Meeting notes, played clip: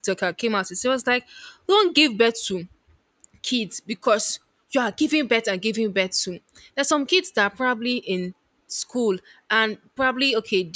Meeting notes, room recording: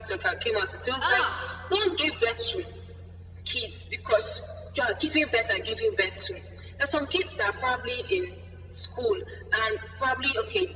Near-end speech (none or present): present